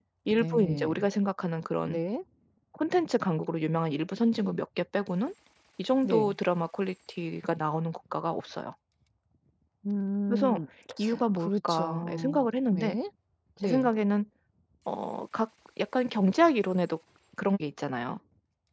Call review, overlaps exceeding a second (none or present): present